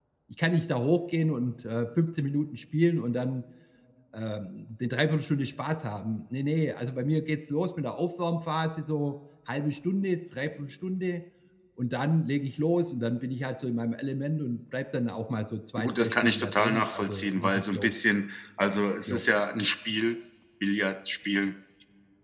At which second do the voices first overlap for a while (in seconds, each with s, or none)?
15.8 s